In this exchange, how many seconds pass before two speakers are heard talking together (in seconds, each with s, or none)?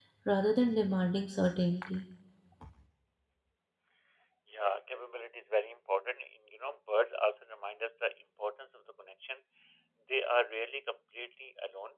none